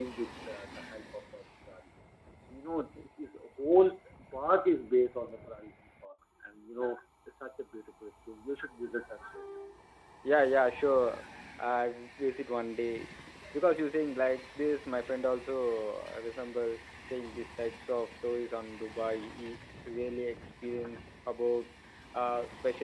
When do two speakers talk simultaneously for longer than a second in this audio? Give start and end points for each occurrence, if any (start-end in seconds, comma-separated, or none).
none